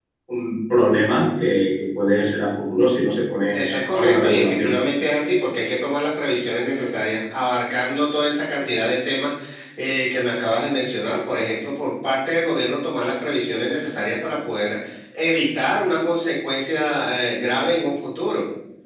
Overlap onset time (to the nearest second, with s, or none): 3 s